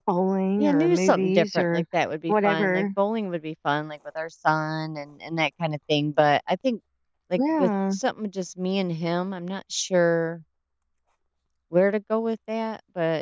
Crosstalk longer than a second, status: present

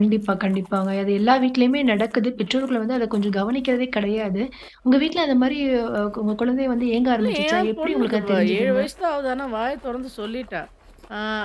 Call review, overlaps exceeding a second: present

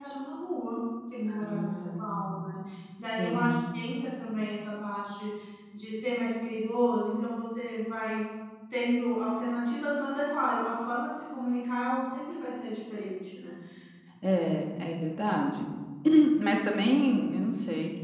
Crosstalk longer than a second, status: present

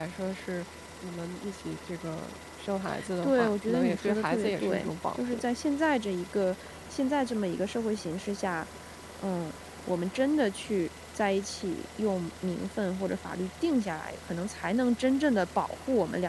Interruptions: present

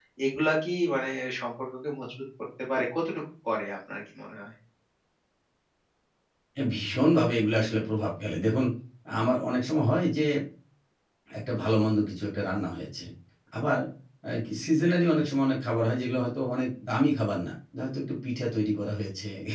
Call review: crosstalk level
none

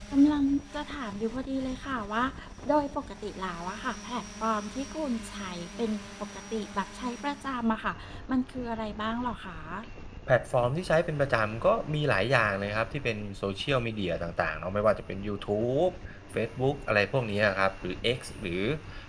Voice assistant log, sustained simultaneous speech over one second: none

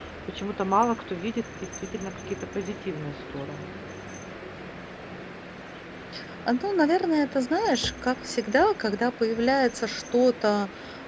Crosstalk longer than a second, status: none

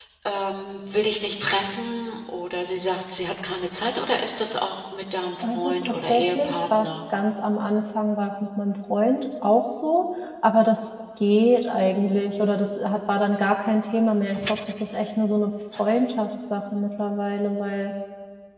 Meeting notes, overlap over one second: present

